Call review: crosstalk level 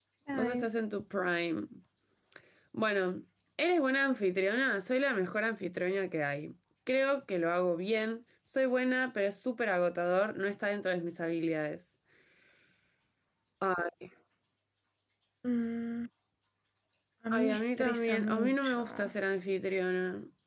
present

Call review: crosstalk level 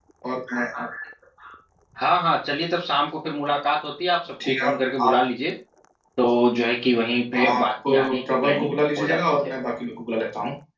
present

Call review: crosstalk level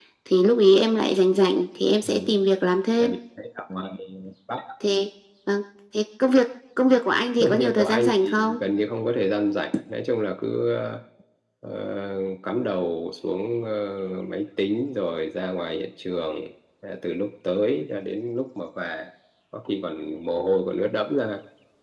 present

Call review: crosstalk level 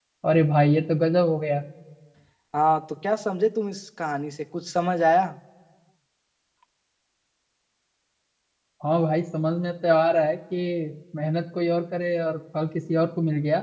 none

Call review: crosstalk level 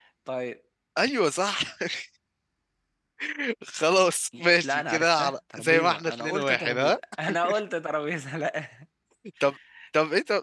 present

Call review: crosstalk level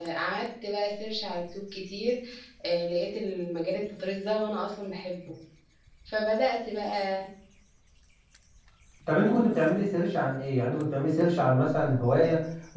none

